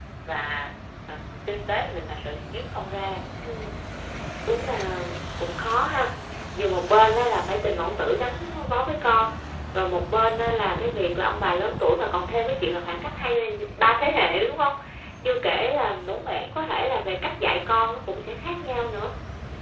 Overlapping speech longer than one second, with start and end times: none

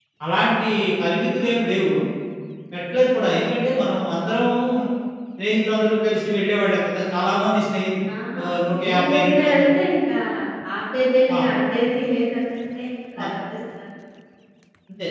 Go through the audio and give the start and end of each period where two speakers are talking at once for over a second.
8.4-9.7

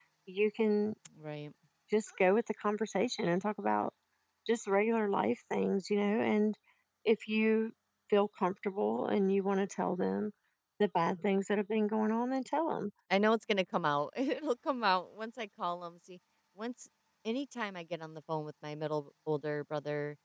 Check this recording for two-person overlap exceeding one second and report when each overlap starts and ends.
none

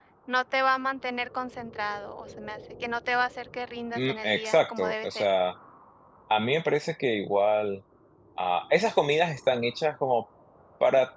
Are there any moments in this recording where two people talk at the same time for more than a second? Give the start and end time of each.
4.0-5.3

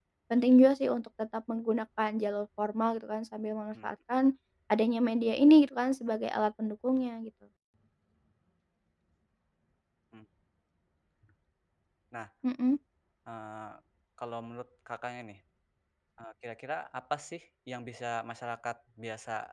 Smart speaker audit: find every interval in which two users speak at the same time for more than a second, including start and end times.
none

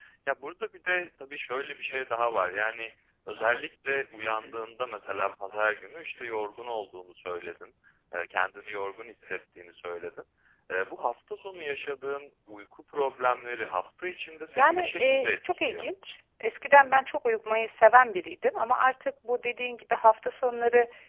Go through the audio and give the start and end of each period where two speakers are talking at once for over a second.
14.6-15.8

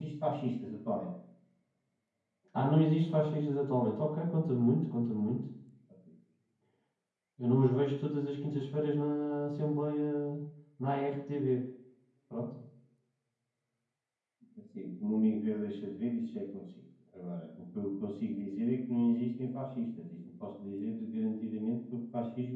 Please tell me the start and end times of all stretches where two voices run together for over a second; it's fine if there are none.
none

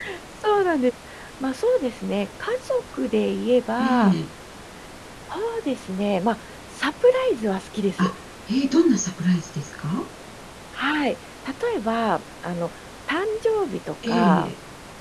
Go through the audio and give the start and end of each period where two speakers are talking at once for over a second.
none

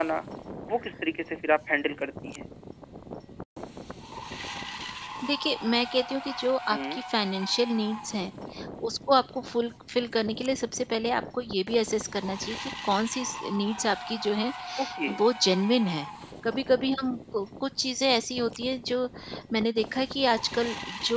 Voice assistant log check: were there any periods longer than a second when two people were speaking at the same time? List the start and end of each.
none

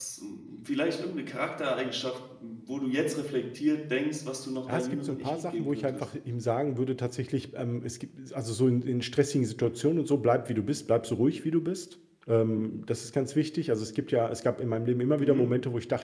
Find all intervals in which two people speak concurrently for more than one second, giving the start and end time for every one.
4.7-6.0

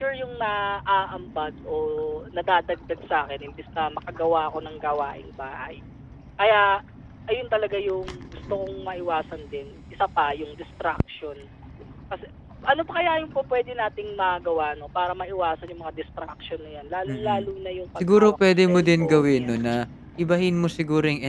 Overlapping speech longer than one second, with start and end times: 18.1-19.6

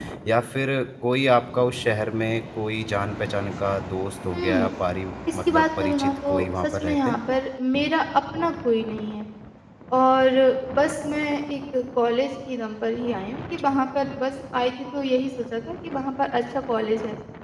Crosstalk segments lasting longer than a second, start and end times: 5.3-7.2

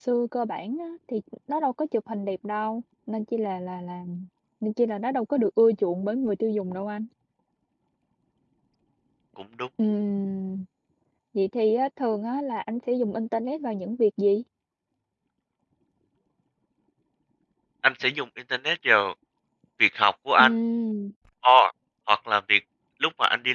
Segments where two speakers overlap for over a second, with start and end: none

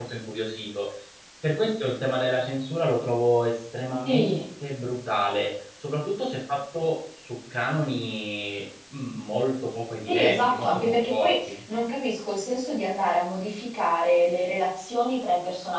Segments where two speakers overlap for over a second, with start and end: 10.1-11.6

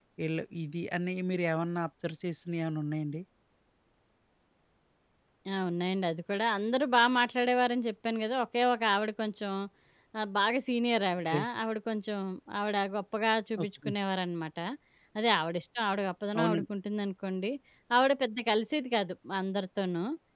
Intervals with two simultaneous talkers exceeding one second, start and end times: none

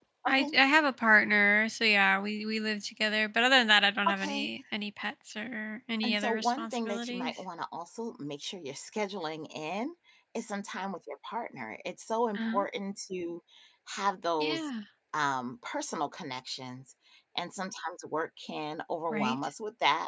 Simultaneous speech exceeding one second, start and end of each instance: 6.0-7.4

